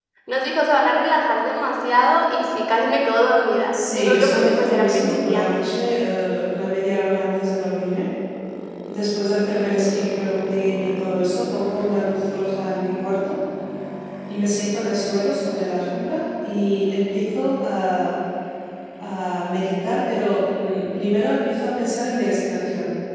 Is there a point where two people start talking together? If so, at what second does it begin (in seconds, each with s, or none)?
3.7 s